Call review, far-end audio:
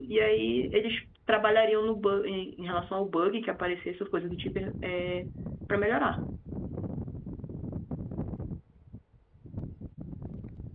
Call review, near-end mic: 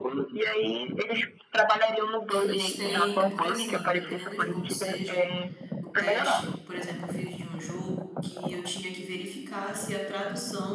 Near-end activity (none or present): present